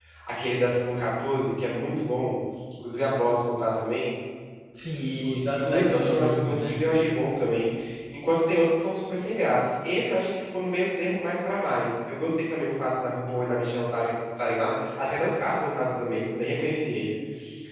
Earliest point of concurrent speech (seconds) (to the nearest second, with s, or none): 5 s